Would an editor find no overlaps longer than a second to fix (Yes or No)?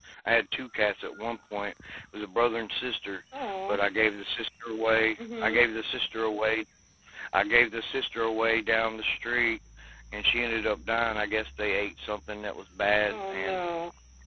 Yes